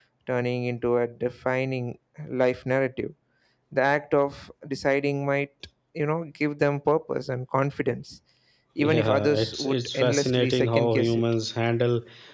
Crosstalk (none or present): present